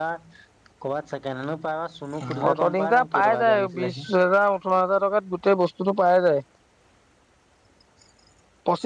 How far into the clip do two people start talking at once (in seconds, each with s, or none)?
2.5 s